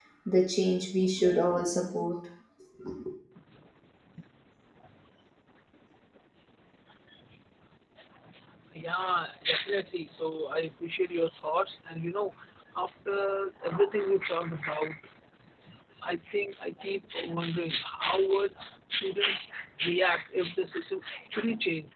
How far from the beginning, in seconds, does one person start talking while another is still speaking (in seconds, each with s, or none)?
none